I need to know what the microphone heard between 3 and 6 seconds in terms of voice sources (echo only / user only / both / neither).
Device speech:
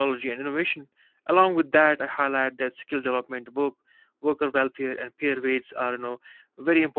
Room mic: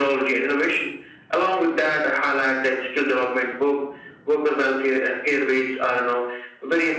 echo only